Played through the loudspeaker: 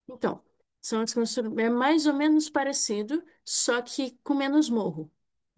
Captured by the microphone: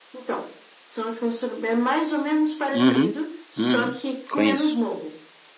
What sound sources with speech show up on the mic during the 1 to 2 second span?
echo only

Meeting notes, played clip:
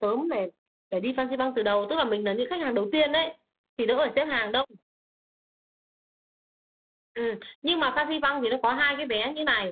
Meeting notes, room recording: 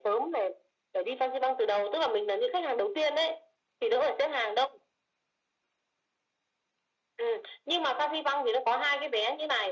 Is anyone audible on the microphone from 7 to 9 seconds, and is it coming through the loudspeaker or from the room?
echo only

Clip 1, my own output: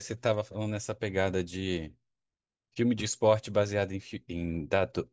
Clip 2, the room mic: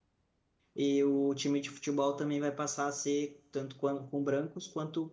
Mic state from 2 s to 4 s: user only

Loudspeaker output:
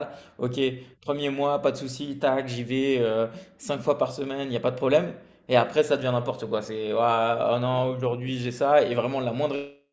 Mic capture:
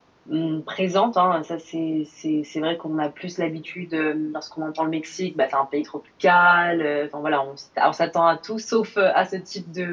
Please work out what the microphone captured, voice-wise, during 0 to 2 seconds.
user only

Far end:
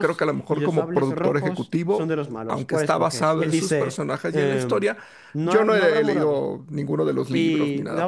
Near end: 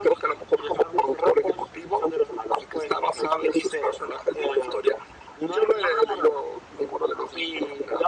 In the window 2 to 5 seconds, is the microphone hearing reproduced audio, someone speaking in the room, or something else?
echo only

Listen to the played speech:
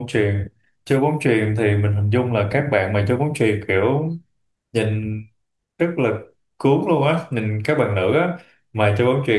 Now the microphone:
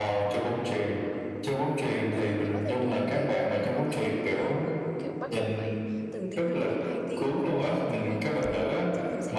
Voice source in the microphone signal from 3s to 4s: both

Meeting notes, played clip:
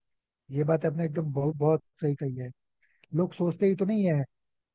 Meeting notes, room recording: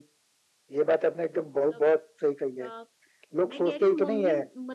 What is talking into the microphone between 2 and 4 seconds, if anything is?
both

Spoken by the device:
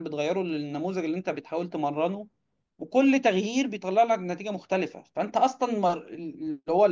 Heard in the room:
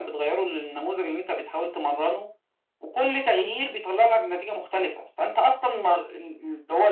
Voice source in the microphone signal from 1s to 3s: echo only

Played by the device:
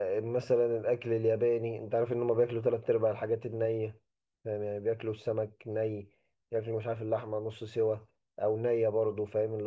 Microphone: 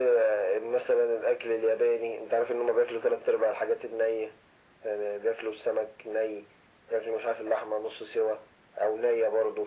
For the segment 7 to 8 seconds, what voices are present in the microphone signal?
echo only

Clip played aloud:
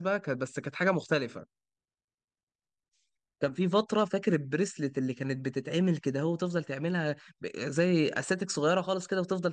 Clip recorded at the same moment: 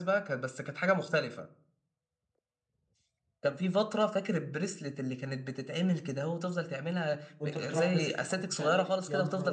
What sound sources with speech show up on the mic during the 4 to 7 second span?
echo only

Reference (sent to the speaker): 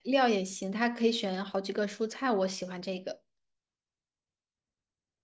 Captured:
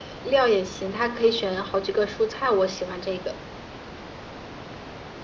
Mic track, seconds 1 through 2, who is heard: echo only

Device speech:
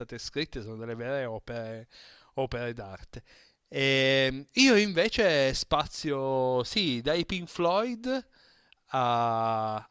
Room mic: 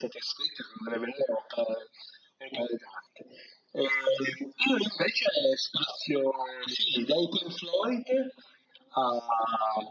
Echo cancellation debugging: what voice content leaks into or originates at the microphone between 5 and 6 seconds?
echo only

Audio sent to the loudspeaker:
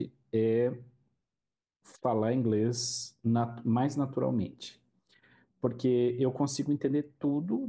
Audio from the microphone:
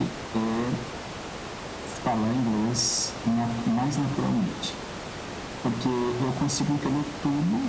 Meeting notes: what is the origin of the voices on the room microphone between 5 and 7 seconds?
echo only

